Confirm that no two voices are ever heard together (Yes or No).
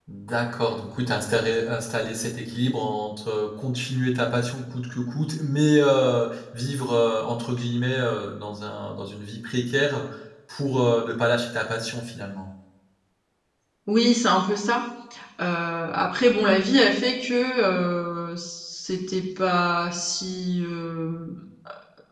Yes